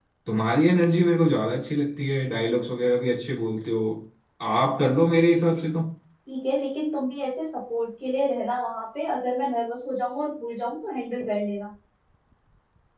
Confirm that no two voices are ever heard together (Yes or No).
Yes